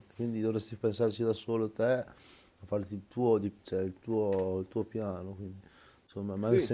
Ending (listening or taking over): listening